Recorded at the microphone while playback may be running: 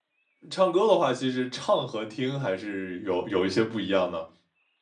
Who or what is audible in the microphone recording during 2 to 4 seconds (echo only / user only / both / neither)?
user only